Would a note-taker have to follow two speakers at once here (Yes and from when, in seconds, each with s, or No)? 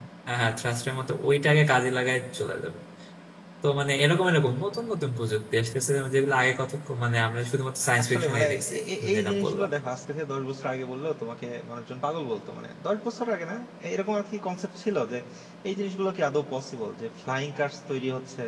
Yes, from 7.9 s